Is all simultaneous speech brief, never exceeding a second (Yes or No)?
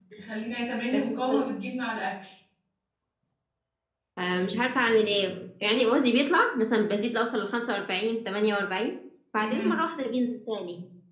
Yes